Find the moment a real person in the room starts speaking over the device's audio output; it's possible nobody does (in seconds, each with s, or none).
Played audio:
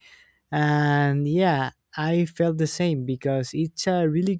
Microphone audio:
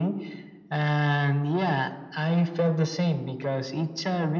none